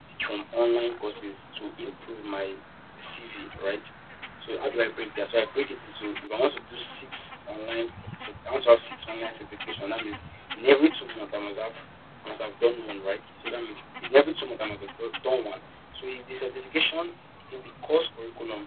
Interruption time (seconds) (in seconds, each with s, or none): none